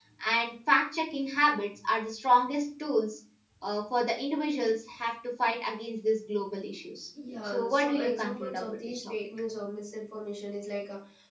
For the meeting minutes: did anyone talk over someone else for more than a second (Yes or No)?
Yes